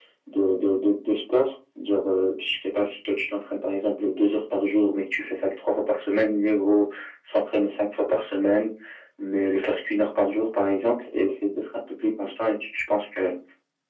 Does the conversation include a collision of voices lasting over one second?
No

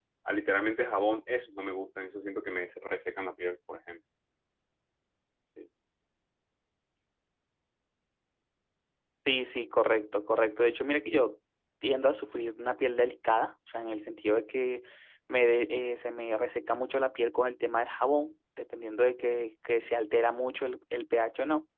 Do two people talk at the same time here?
No

